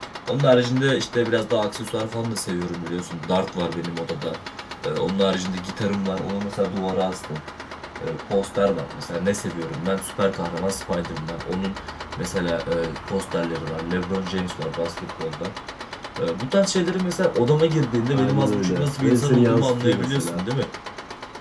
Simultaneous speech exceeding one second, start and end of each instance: 18.1-20.4

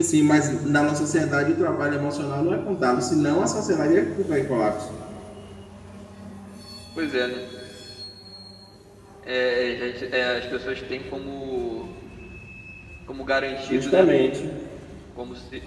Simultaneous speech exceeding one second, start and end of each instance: none

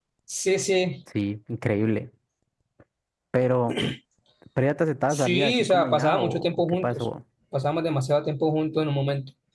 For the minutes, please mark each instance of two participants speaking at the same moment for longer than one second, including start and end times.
5.1-7.0

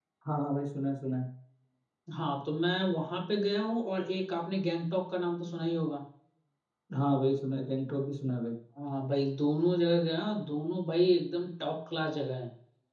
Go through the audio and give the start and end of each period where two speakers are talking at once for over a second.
none

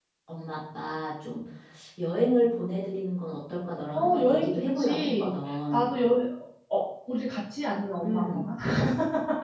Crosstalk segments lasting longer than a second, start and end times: 3.9-5.9

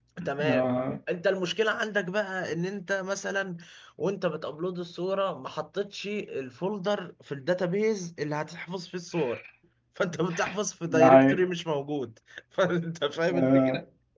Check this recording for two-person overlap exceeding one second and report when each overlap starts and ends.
none

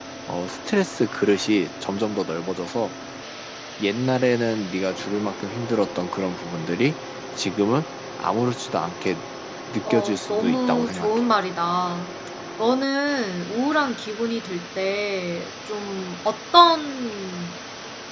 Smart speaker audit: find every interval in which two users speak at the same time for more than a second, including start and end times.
9.9-11.3

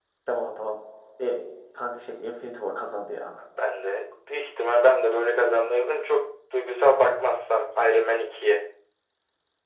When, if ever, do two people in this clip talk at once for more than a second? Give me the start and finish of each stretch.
none

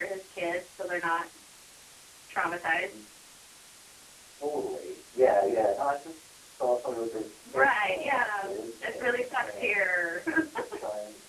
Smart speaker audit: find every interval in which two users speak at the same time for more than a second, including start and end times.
7.5-9.7

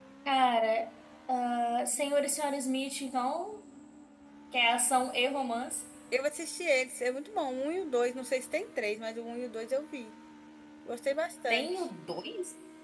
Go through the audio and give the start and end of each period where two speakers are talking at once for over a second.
none

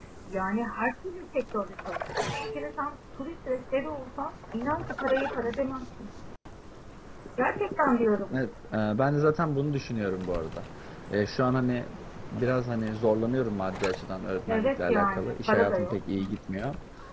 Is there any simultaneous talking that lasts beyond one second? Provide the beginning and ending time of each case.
14.5-16.0

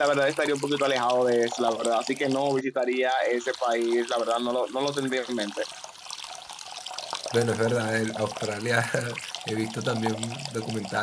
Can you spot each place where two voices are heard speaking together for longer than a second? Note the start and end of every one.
none

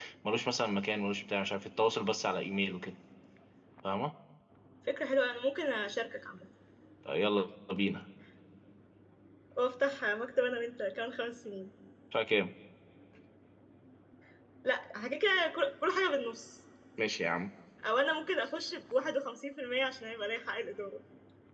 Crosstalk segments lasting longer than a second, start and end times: none

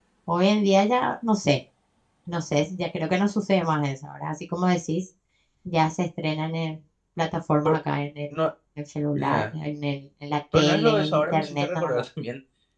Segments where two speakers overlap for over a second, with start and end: 10.5-11.9

